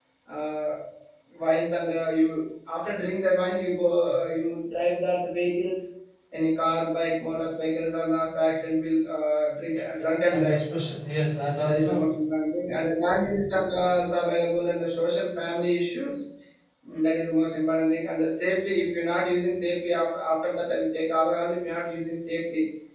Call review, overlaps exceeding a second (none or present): none